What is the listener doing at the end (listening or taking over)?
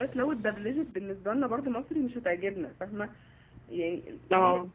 listening